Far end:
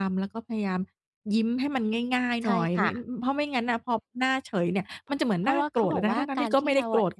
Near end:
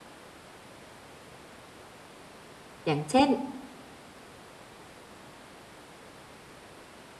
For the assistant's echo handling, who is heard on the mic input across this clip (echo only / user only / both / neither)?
user only